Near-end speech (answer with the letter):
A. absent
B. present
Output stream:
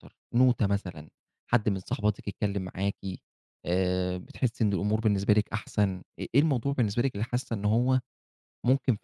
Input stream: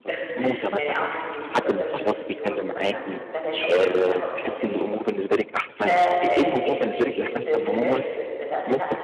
B